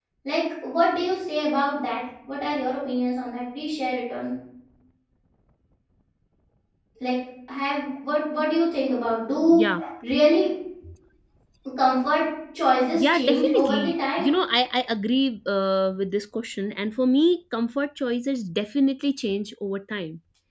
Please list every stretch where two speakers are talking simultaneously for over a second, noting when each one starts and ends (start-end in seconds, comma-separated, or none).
12.9-14.3